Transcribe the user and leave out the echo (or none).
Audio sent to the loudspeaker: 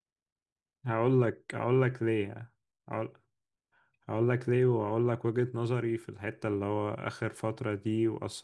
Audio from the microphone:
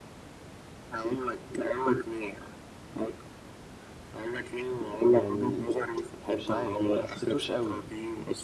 يعني مش عارف ما حسيتوش قوي